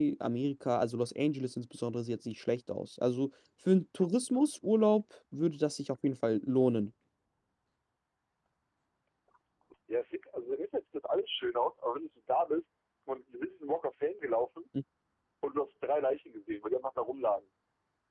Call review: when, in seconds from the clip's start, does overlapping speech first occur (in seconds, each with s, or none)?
none